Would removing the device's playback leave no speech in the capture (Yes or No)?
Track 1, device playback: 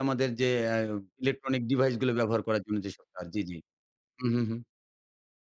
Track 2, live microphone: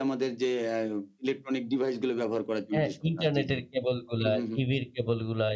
No